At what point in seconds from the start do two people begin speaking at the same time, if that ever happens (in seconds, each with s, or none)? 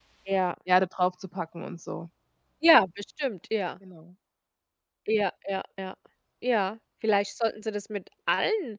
none